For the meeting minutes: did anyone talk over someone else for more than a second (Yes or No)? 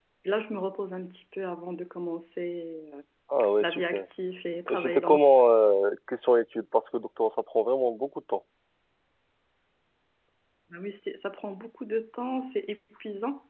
No